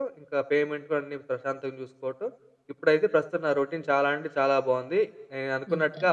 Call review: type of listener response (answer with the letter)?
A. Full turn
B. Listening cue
B